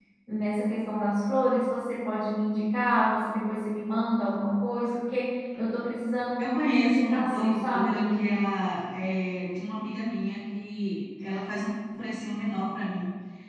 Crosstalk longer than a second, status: present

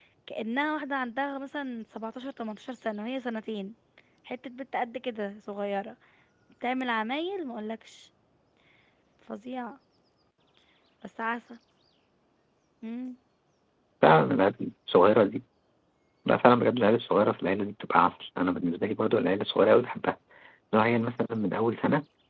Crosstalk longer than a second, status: none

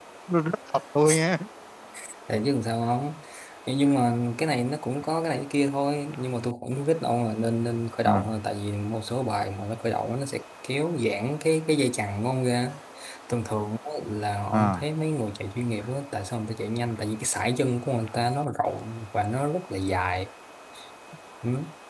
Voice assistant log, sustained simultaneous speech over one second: none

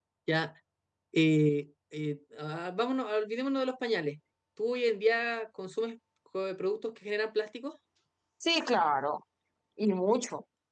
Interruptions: none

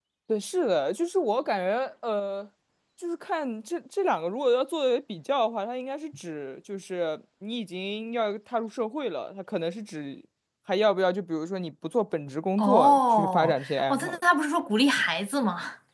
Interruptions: present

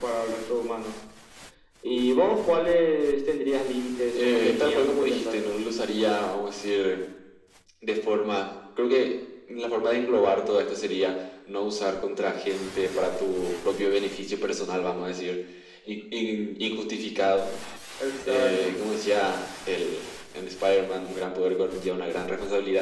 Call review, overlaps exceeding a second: present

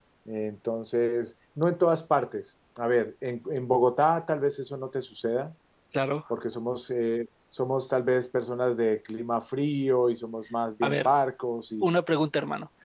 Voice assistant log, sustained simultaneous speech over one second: none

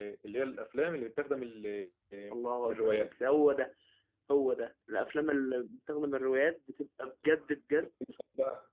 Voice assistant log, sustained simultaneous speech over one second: none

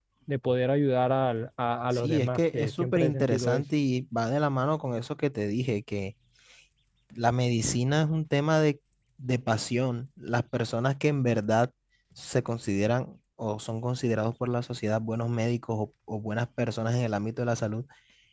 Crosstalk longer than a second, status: present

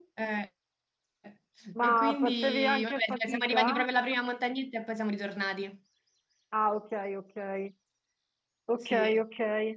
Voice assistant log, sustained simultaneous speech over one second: present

